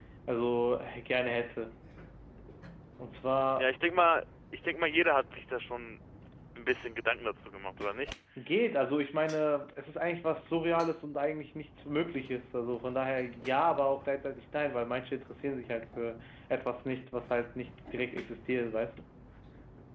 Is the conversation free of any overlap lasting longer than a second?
Yes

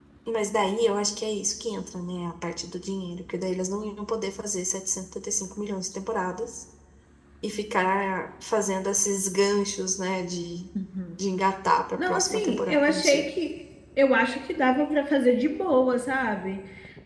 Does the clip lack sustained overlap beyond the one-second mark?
No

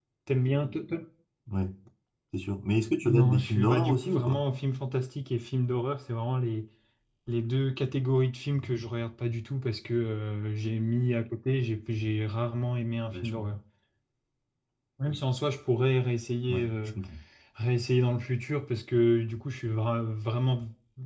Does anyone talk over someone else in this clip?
Yes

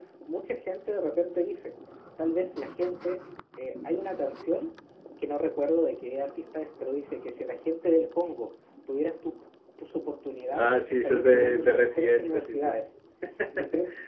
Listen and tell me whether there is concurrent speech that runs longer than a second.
Yes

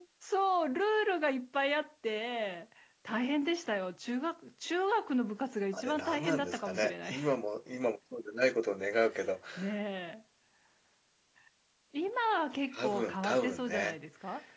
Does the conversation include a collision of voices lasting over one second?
Yes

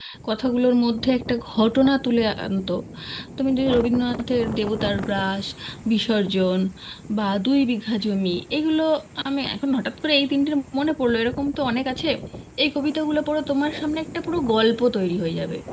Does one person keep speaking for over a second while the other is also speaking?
No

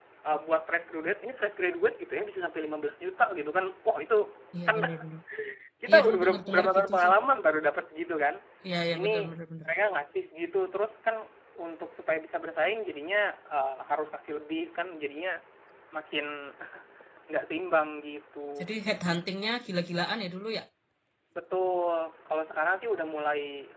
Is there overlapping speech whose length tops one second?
Yes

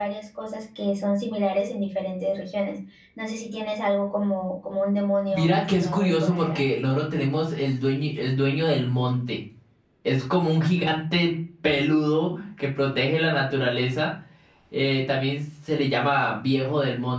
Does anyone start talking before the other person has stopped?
Yes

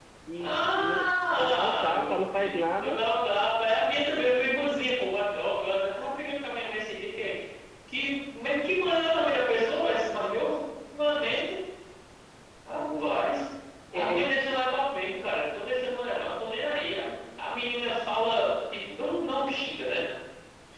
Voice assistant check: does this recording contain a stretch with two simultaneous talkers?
Yes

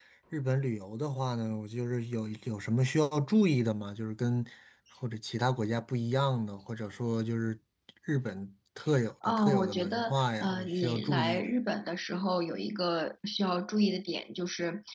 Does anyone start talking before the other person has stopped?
Yes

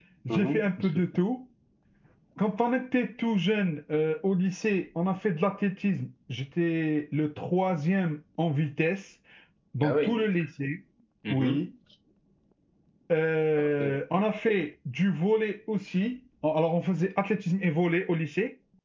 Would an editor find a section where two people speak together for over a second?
No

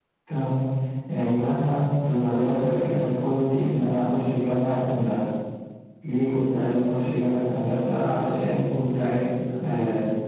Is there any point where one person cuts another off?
No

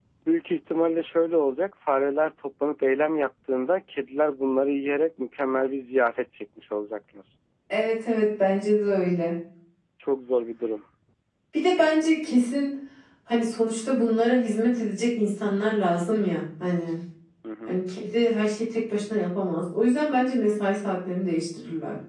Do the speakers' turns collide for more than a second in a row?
No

